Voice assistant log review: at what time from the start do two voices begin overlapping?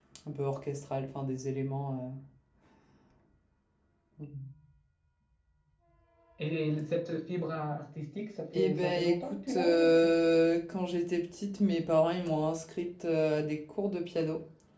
8.5 s

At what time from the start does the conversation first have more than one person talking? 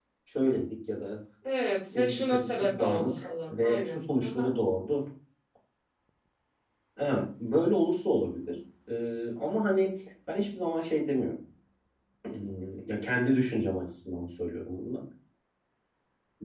1.8 s

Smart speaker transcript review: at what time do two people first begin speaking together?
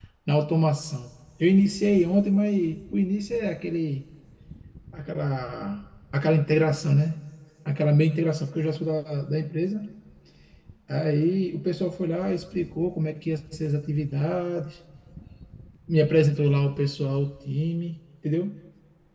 none

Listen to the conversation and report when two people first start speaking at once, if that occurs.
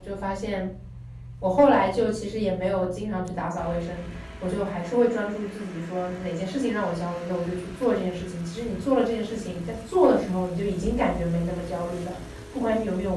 none

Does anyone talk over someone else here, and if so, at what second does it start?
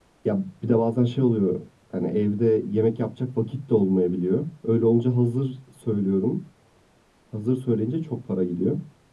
none

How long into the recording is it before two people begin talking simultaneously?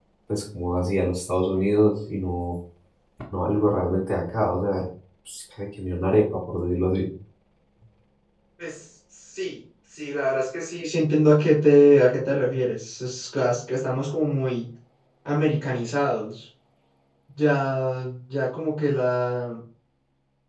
none

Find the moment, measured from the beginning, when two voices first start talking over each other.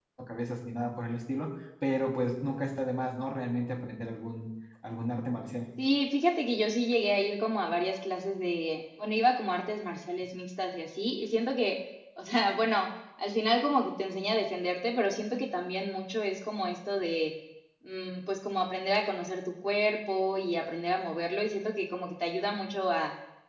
none

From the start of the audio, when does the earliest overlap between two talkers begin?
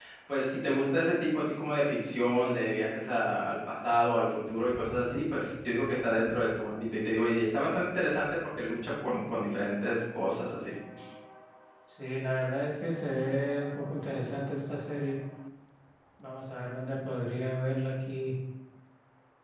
none

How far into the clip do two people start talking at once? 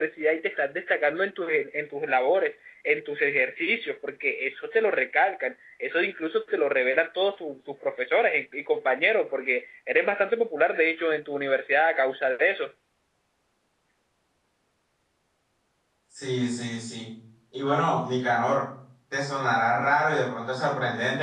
none

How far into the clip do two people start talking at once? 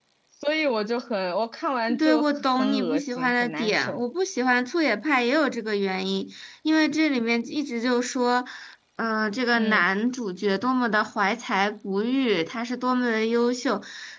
2.0 s

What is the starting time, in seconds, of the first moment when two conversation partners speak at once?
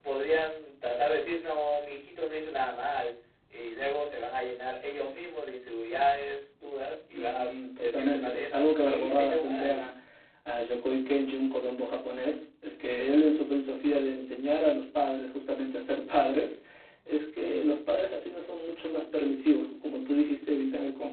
7.1 s

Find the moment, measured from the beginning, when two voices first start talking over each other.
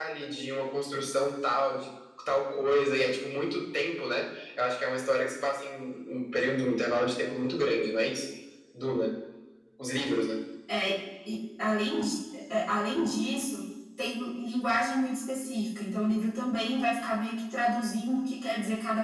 none

